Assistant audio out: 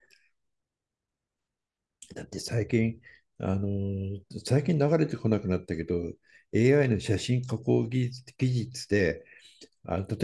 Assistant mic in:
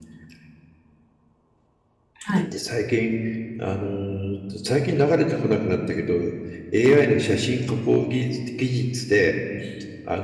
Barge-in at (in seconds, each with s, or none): 2.1 s